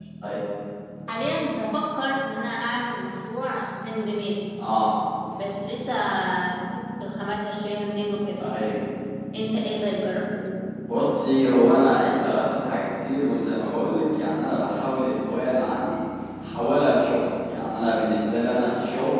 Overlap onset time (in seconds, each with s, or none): none